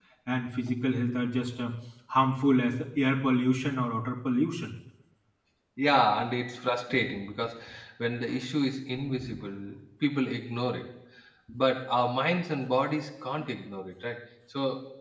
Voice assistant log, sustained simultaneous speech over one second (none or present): none